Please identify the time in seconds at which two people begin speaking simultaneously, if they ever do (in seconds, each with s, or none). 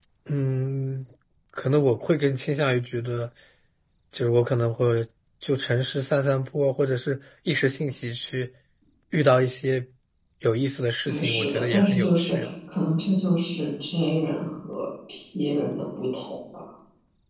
11.1 s